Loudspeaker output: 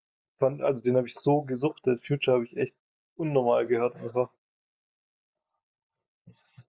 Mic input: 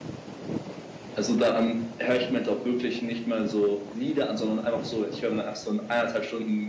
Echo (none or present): none